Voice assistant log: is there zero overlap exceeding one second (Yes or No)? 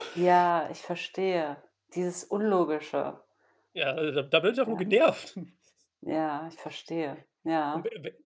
Yes